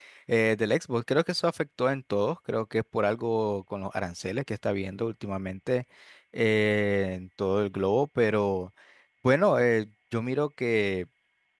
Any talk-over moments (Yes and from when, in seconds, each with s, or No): No